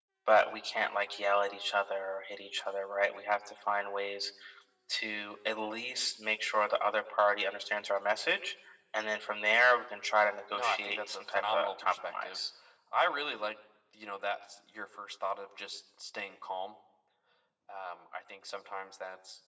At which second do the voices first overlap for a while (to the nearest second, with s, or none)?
10 s